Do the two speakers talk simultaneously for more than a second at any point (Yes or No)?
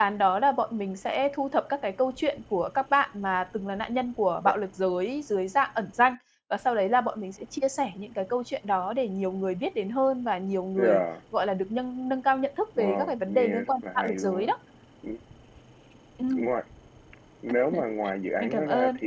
Yes